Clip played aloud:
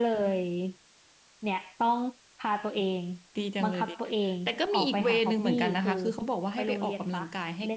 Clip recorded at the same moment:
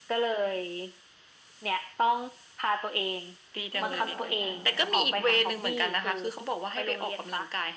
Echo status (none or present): present